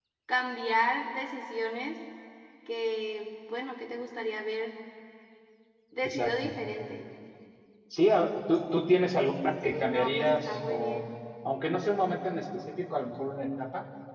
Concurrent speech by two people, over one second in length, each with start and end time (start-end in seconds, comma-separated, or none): 9.6-11.0